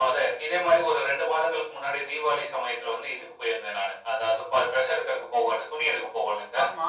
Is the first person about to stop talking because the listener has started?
No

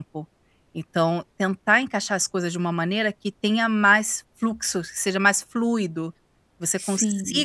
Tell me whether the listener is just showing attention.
Yes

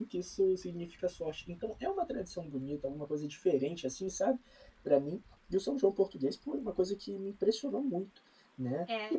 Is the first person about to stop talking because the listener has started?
Yes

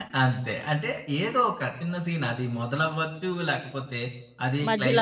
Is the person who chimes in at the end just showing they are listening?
Yes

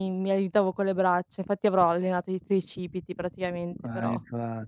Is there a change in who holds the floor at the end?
Yes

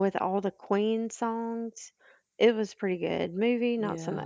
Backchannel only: No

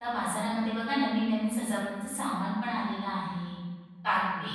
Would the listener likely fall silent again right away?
Yes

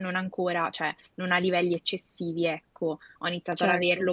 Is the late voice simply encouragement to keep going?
Yes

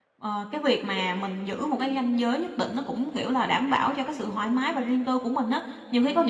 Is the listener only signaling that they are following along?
Yes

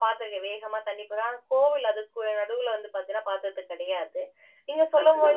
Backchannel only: Yes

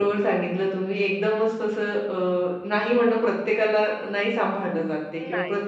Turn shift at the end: No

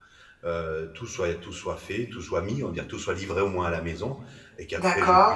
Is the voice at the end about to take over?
No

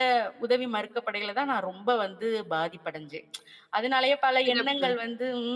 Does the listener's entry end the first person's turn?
No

